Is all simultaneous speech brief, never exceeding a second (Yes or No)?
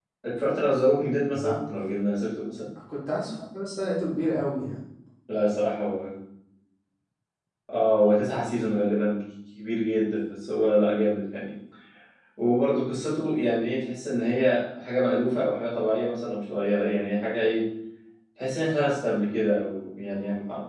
Yes